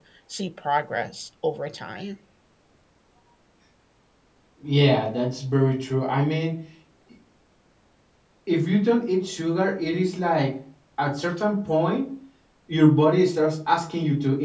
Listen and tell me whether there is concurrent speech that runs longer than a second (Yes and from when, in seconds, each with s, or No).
No